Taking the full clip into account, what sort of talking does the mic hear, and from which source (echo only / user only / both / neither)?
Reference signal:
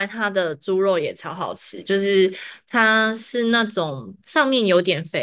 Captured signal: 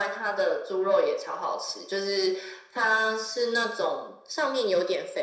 echo only